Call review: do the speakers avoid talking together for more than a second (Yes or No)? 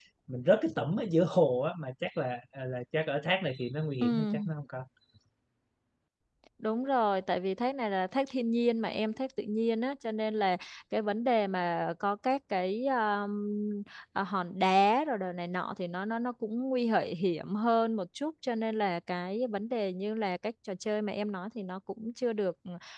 Yes